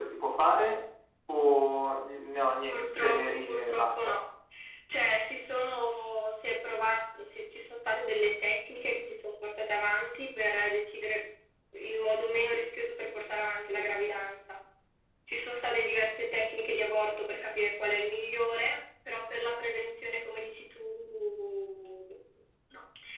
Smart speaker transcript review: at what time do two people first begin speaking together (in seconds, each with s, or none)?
2.7 s